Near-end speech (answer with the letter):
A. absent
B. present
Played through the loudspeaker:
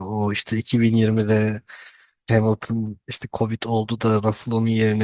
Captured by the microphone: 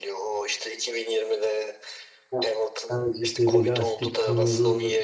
B